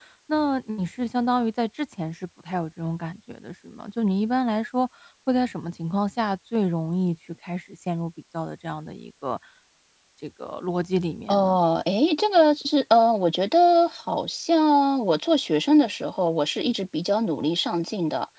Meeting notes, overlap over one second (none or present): none